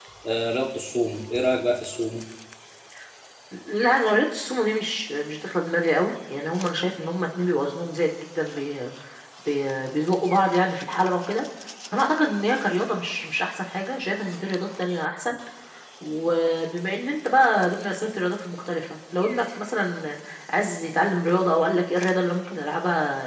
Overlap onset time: none

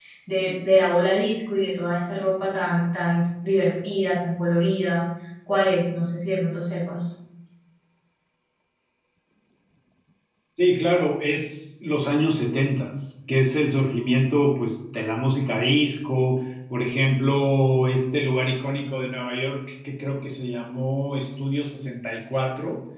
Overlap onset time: none

